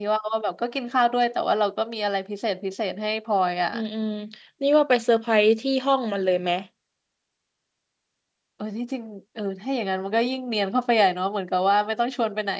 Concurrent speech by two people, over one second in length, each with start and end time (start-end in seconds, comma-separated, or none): none